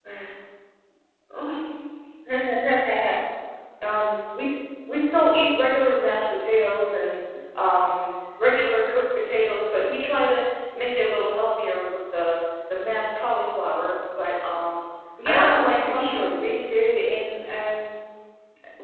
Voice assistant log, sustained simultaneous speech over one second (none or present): present